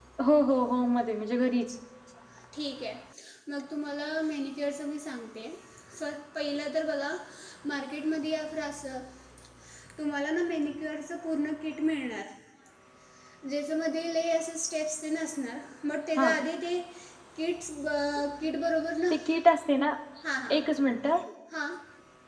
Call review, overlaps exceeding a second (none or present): none